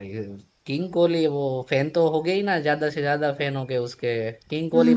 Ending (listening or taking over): taking over